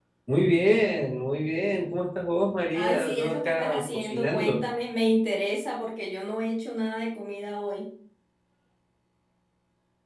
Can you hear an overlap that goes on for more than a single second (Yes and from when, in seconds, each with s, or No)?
Yes, from 2.7 s